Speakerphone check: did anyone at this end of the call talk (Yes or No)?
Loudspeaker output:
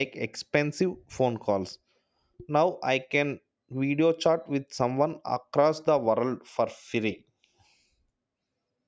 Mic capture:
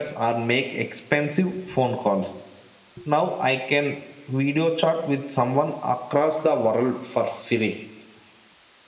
No